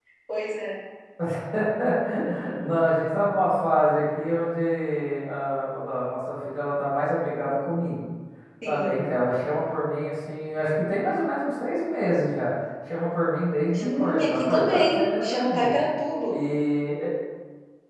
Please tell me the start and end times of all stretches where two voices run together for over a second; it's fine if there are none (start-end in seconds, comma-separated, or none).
13.7-15.7